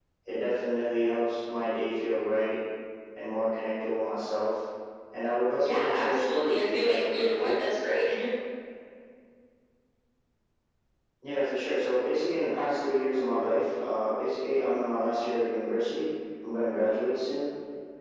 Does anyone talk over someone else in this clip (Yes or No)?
Yes